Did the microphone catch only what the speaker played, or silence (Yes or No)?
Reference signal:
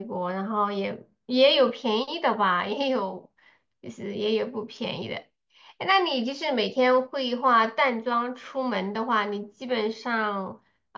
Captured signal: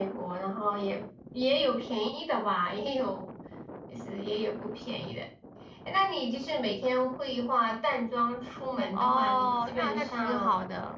No